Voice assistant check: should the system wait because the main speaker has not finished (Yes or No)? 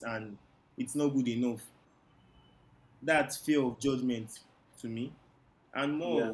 Yes